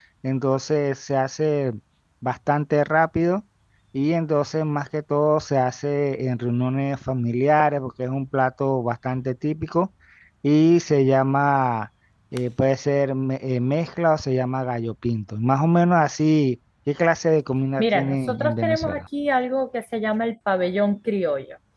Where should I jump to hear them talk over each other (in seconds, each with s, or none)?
17.8 s